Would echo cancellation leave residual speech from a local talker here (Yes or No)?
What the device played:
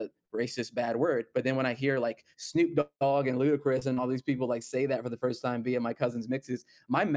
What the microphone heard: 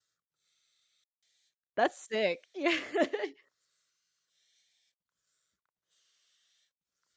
Yes